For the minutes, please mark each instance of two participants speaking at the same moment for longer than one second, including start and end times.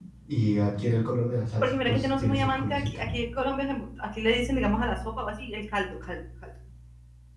1.6-3.0

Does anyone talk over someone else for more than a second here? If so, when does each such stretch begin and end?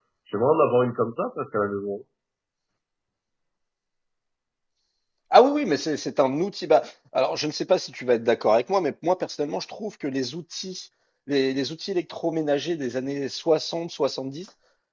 none

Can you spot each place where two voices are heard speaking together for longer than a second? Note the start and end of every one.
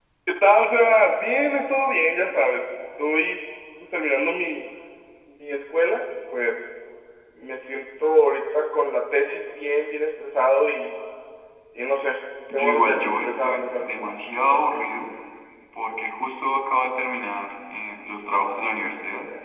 12.5-14.1

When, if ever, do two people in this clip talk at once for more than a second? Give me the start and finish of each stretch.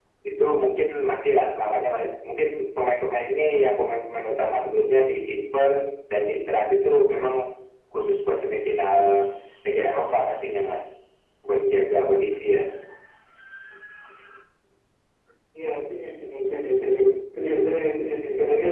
none

